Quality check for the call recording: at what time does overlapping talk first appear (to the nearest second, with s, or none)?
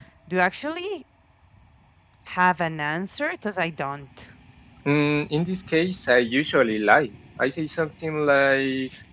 none